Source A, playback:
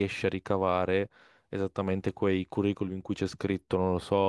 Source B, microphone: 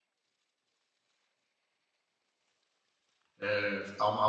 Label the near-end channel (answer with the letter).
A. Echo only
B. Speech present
B